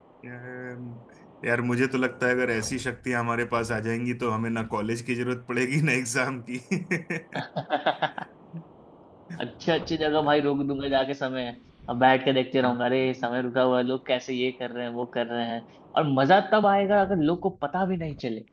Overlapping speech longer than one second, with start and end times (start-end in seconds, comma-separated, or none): none